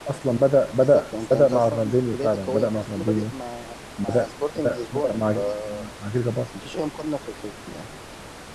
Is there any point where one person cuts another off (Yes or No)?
Yes